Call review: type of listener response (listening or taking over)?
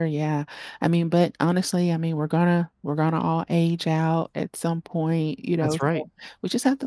listening